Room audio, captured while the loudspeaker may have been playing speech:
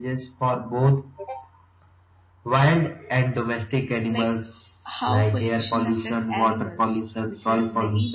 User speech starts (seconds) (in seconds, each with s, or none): 4.1 s